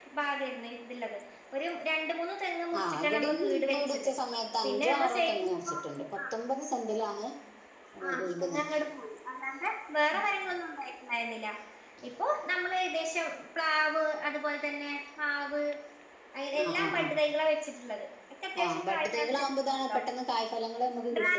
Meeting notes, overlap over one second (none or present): present